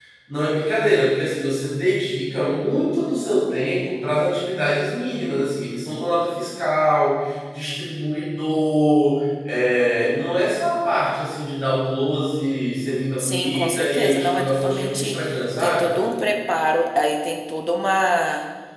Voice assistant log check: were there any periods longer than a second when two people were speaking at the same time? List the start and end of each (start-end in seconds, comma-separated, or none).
13.2-15.2